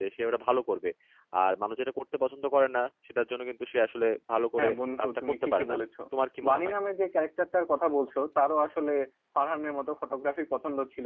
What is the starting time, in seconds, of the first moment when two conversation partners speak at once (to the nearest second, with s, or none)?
5 s